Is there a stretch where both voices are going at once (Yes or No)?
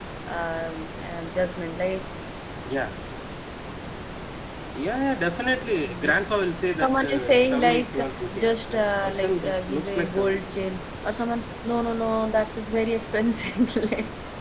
Yes